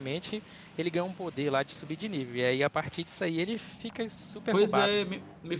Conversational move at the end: taking over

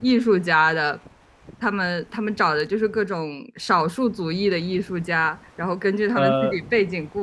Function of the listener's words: listening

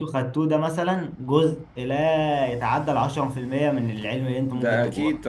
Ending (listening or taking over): taking over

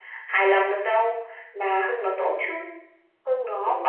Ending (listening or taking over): taking over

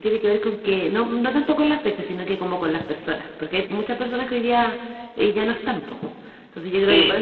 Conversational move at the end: taking over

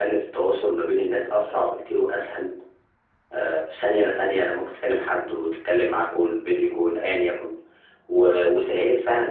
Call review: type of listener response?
listening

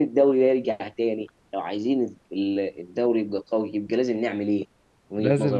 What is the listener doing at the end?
taking over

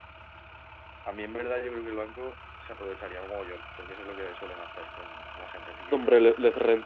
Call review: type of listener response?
taking over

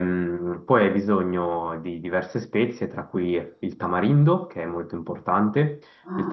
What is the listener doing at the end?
listening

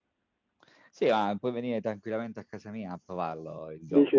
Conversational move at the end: listening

